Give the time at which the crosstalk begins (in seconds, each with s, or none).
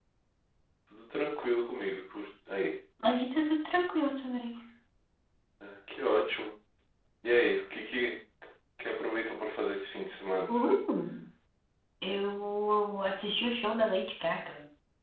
none